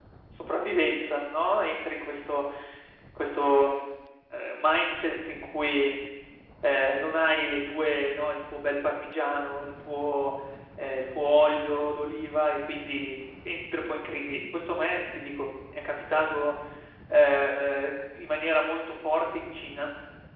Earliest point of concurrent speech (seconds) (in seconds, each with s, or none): none